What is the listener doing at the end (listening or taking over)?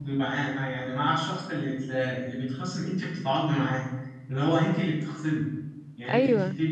listening